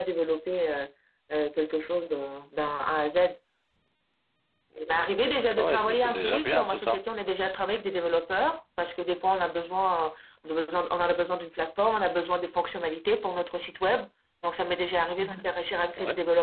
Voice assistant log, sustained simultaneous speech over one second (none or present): present